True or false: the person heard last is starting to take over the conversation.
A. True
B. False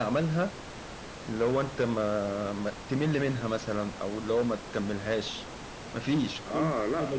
A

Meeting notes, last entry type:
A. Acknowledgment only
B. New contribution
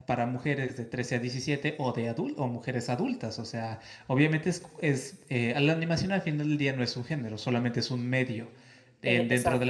A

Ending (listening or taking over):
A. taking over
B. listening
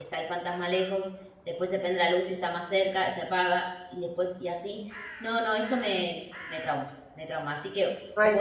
B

